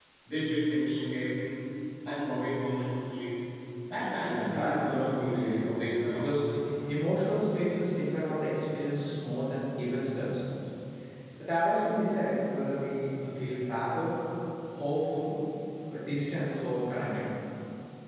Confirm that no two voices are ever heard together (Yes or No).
No